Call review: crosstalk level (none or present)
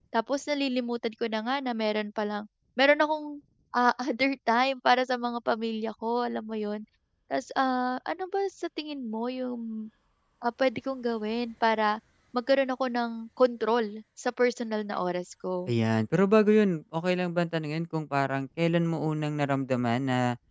none